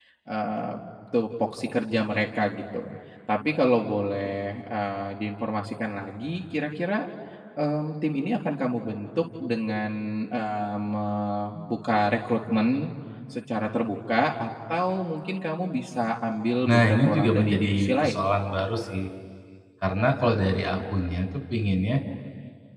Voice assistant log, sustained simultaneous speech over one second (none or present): present